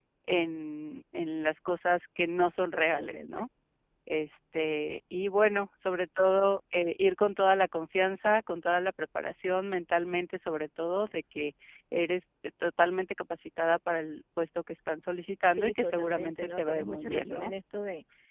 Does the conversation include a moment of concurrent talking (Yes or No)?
Yes